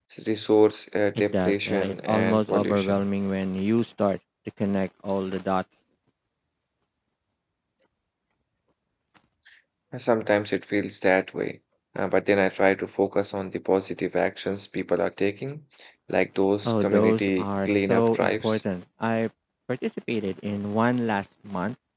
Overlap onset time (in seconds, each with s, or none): 1.1 s